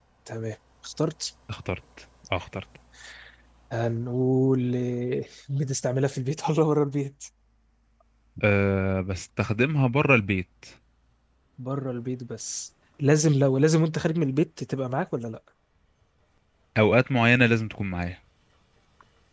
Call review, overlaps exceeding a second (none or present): none